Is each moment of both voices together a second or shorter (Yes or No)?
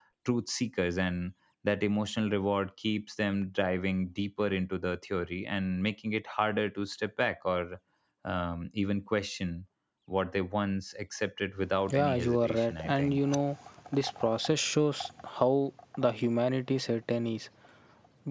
No